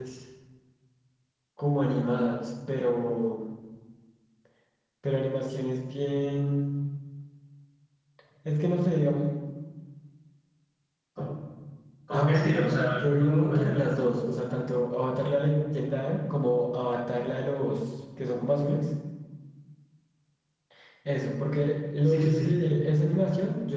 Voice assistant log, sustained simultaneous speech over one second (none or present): present